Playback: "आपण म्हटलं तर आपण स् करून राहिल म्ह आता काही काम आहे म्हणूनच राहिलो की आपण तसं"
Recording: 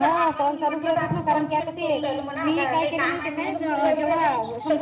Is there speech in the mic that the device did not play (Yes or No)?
Yes